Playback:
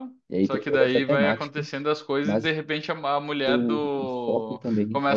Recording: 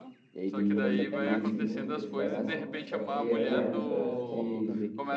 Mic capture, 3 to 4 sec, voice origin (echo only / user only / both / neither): both